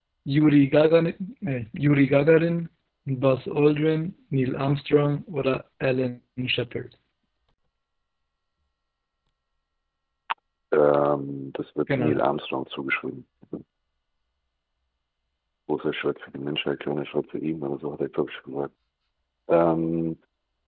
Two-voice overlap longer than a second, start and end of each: none

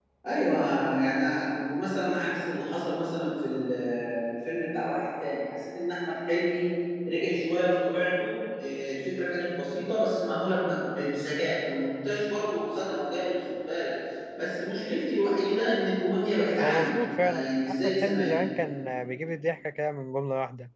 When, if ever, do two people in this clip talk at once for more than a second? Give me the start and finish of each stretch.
16.6-18.4

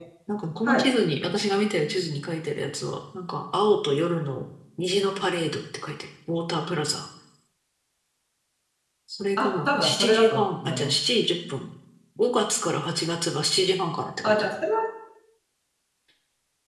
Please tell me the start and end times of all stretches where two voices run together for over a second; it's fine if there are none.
9.4-10.9

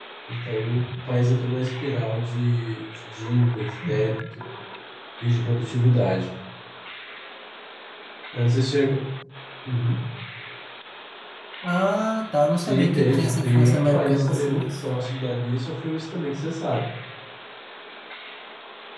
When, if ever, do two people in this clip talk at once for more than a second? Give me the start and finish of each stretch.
12.6-14.7

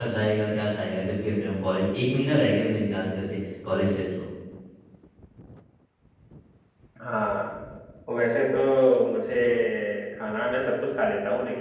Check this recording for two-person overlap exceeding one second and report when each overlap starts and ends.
none

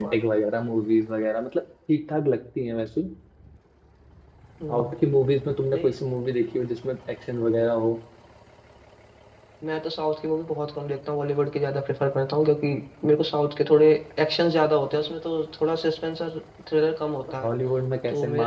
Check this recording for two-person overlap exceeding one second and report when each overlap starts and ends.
none

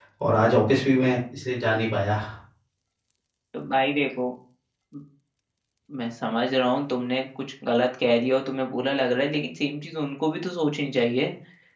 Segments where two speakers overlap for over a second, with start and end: none

